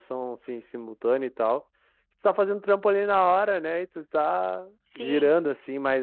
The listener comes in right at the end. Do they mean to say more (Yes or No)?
No